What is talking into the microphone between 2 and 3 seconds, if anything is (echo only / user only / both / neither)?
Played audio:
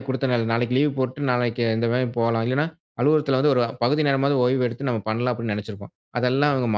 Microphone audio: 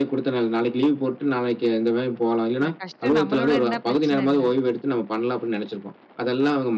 both